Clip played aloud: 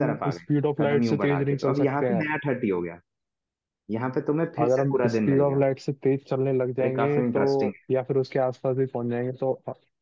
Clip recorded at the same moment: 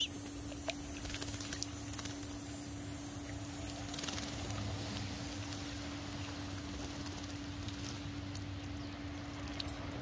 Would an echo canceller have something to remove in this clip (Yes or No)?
No